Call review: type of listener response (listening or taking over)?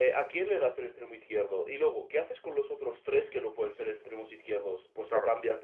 listening